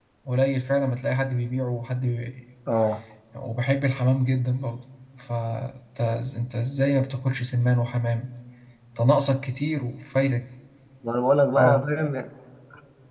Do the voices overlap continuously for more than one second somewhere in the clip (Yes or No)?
No